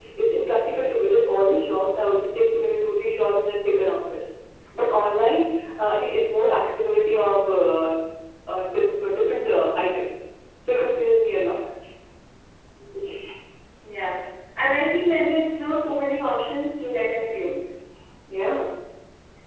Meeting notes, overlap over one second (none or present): none